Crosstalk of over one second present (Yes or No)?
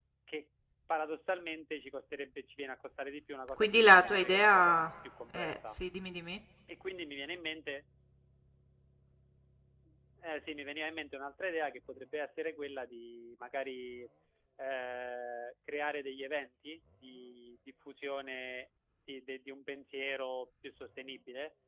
Yes